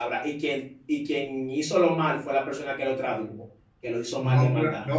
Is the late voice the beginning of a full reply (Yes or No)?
Yes